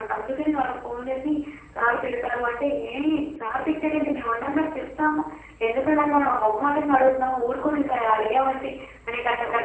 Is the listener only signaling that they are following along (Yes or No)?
Yes